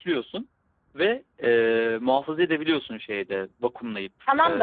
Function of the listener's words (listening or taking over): taking over